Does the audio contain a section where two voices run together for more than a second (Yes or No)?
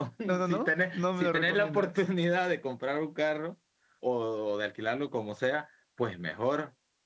Yes